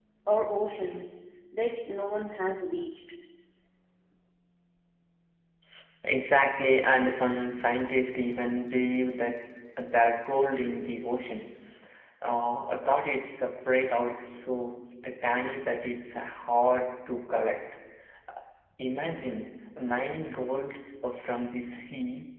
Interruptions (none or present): none